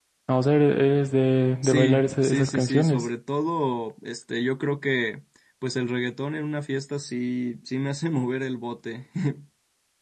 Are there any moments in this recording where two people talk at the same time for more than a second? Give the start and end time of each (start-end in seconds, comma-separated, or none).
1.6-3.1